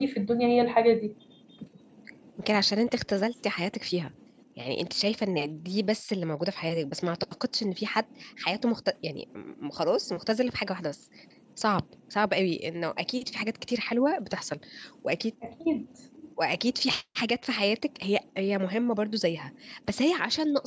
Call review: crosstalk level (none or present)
none